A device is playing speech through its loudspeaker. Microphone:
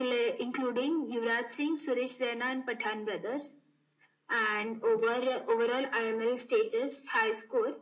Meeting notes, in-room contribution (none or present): none